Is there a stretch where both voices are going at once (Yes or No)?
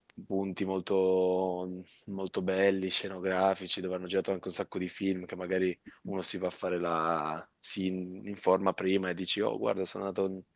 No